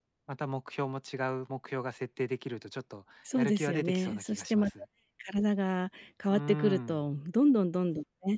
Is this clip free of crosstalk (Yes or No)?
No